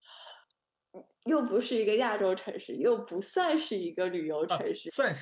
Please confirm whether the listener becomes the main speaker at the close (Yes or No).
Yes